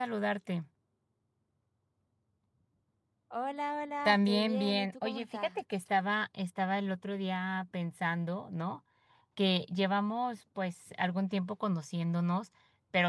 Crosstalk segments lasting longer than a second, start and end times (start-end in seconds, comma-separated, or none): 4.0-5.6